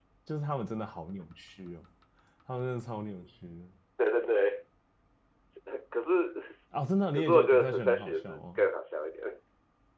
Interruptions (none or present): present